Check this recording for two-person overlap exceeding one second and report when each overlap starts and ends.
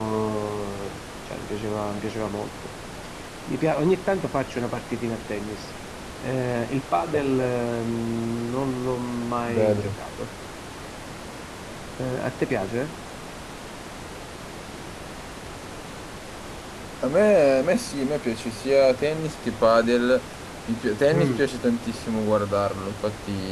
none

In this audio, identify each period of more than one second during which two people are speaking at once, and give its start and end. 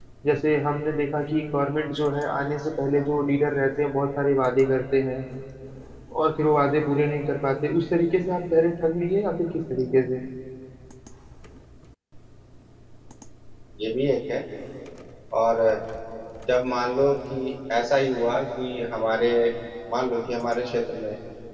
none

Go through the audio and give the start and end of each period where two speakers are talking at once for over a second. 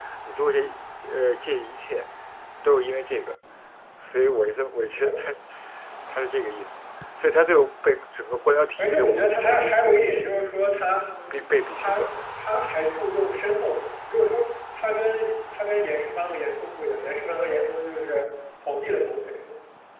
8.8-10.4

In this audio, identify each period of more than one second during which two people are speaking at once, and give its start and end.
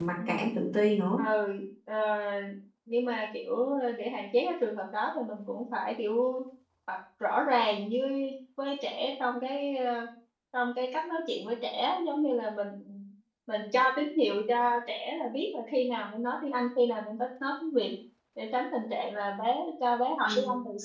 none

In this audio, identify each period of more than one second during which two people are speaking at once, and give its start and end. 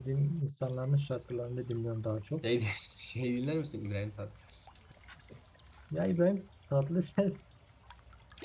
none

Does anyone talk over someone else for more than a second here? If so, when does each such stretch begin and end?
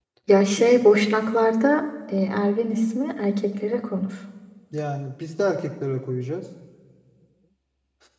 none

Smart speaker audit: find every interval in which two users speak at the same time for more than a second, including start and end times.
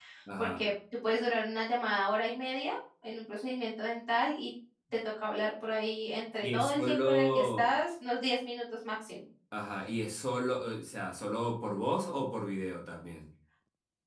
6.4-7.7

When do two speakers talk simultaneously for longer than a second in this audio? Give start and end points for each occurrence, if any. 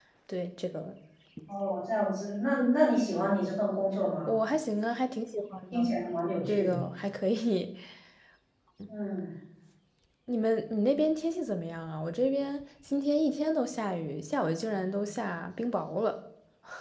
none

